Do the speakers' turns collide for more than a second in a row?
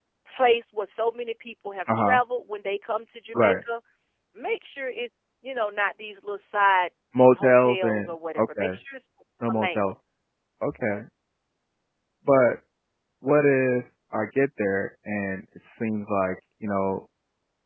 Yes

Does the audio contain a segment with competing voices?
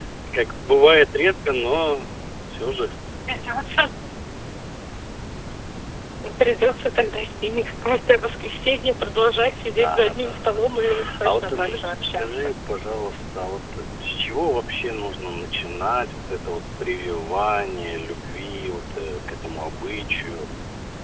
Yes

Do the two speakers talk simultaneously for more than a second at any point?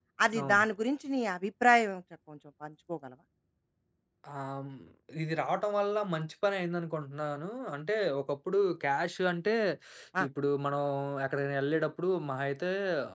No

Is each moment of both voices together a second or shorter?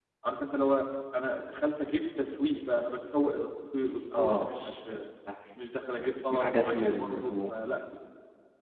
No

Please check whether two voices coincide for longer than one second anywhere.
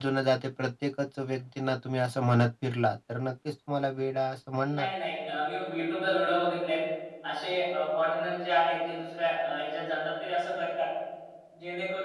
No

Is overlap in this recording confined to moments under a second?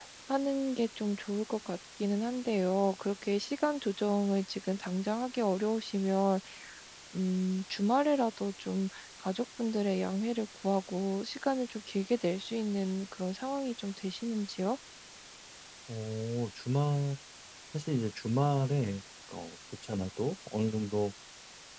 Yes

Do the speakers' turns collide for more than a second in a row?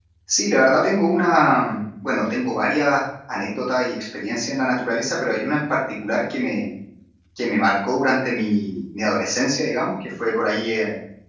No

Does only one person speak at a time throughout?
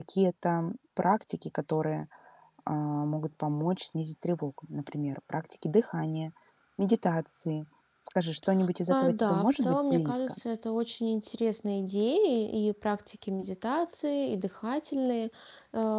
No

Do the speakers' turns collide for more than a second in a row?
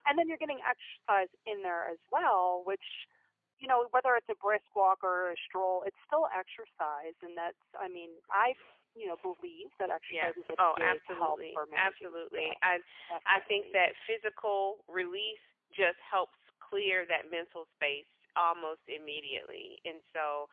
Yes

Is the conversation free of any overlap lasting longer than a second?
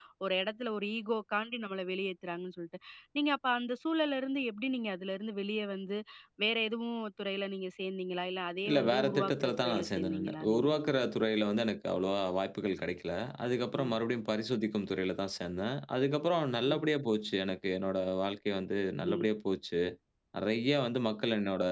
No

